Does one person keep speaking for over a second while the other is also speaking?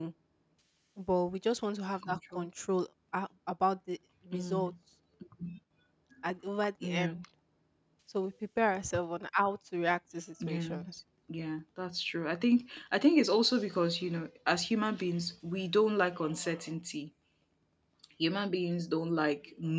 No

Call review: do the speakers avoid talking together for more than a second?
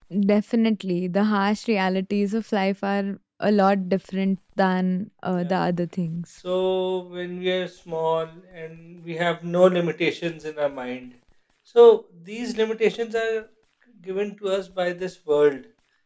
Yes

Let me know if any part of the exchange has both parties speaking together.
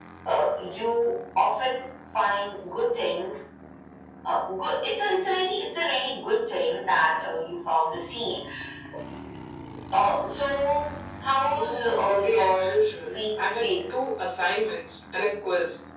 Yes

